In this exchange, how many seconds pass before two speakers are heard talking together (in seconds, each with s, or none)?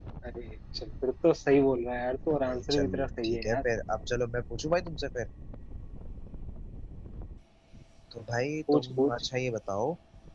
2.3 s